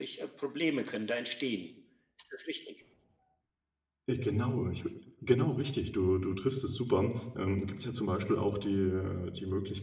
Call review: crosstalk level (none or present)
none